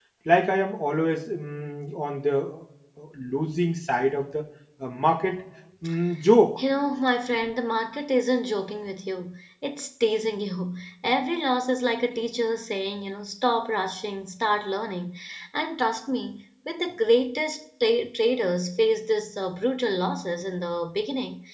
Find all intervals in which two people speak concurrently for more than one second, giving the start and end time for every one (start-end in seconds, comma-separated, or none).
none